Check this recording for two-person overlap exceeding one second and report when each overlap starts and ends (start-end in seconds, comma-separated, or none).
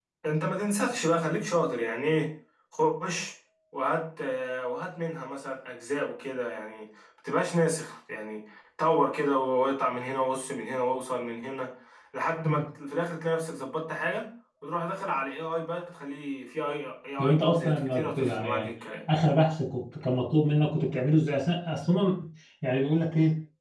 17.2-18.7